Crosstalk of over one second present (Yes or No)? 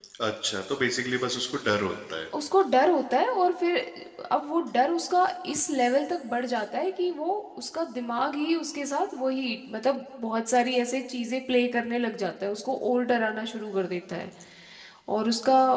No